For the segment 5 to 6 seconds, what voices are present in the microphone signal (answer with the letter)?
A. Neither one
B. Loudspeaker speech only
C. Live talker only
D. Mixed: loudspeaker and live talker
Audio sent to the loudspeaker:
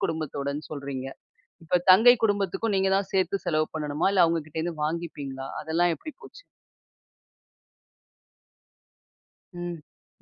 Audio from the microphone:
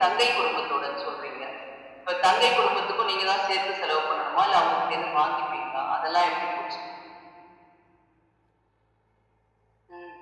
B